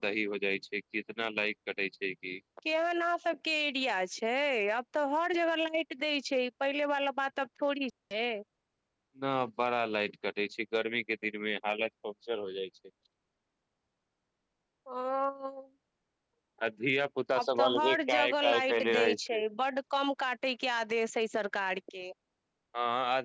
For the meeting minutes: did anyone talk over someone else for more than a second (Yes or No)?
Yes